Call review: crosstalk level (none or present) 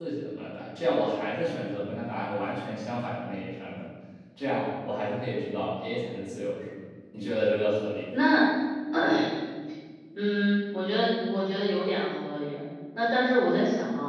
none